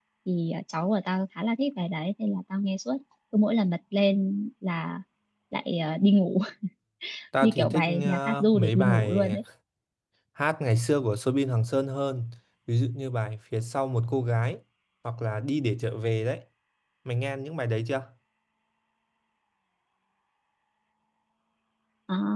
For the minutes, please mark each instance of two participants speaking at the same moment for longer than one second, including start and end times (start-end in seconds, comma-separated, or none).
7.4-9.4